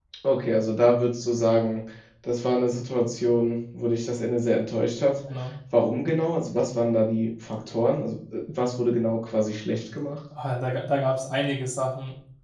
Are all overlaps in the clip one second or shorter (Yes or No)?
Yes